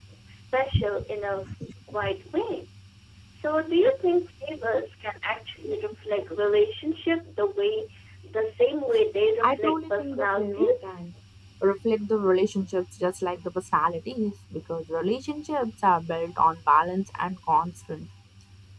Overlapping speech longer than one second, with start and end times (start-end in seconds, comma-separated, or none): 9.4-11.0